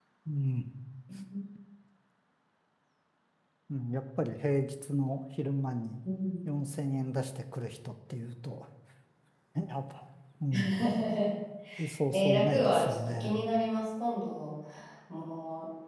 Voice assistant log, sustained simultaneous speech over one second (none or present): present